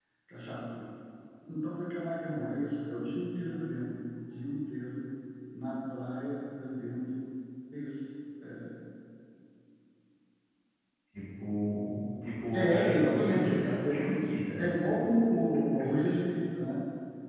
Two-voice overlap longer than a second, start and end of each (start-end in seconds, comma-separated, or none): 12.5-14.0